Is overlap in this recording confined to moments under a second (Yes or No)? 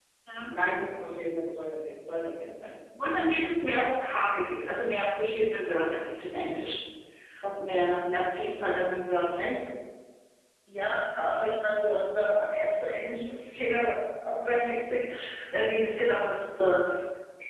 Yes